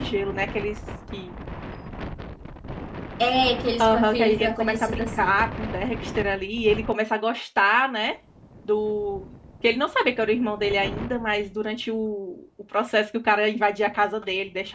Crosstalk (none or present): present